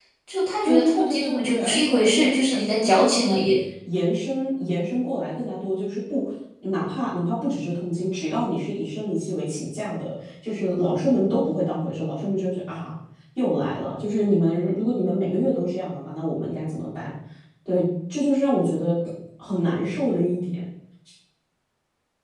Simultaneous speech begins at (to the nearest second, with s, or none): 1 s